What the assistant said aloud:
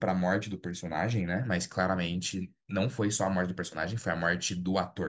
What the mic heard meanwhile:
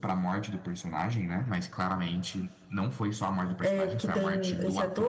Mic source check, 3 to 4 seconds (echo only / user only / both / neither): both